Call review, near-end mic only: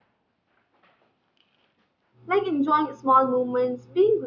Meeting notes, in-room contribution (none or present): present